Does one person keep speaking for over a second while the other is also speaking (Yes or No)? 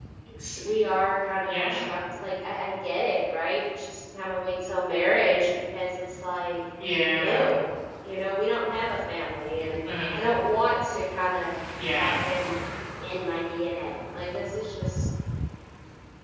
No